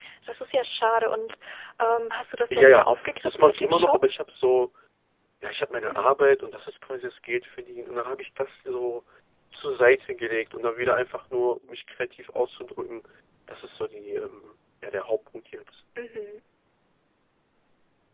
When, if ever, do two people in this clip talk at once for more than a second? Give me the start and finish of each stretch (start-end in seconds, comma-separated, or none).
2.5-4.0